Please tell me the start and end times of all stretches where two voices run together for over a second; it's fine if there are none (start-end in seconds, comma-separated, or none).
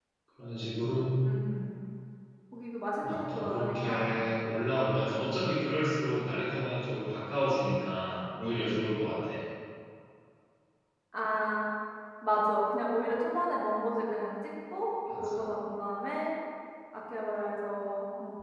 3.0-4.3